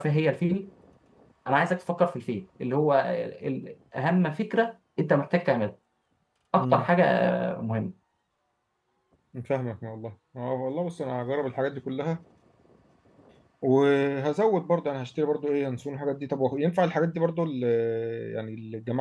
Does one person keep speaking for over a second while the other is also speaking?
No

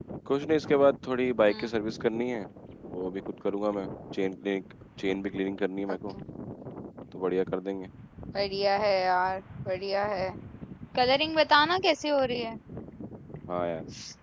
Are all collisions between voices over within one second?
Yes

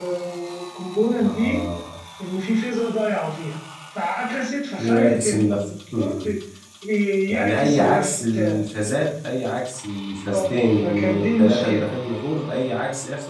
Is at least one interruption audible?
Yes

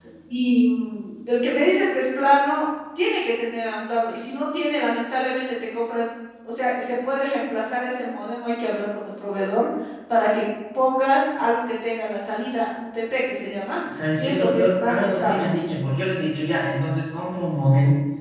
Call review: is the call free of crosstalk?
No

